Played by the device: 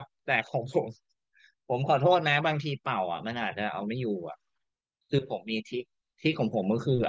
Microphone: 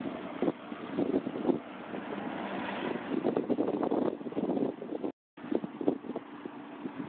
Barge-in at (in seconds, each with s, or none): none